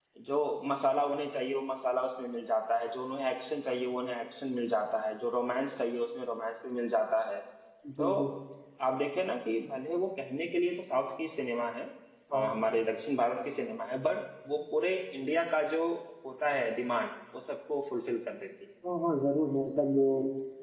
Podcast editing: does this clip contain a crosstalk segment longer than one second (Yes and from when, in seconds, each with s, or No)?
No